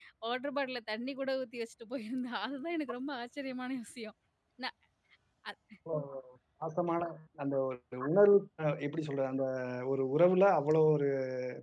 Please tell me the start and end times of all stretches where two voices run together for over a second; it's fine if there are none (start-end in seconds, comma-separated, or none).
none